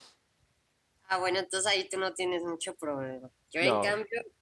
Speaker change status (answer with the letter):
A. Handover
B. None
B